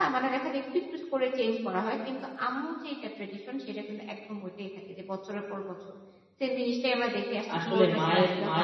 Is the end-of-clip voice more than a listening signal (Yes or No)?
Yes